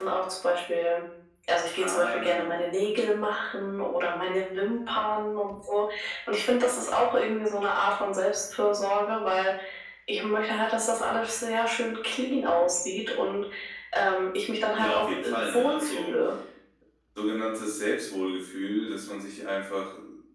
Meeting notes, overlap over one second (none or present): present